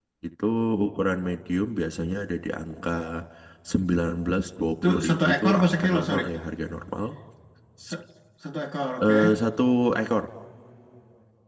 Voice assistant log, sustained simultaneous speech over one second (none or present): present